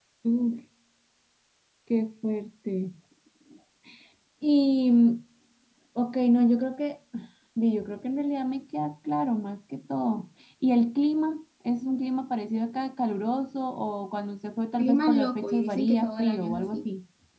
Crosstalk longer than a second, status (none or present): present